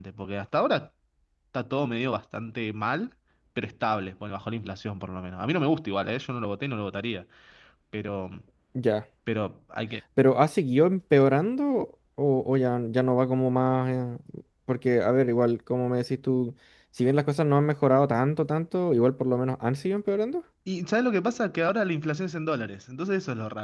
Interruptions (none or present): none